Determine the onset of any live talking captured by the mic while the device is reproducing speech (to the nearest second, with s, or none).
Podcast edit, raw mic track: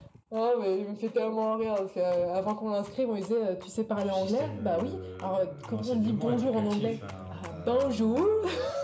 4 s